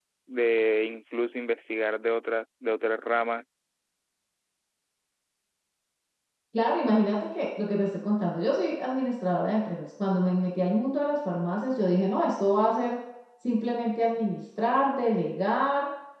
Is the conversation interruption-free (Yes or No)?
Yes